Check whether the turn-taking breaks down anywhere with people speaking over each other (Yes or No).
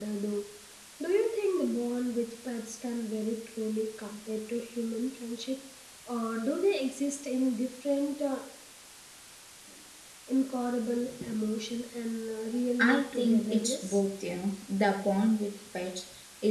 Yes